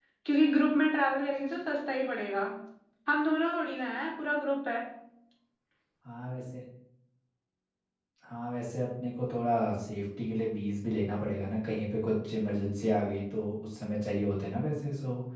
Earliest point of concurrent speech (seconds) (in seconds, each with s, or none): none